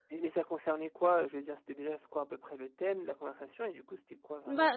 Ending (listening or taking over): taking over